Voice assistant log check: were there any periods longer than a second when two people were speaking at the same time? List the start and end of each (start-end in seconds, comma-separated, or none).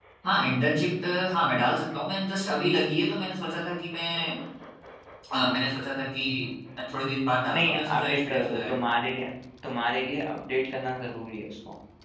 7.5-8.9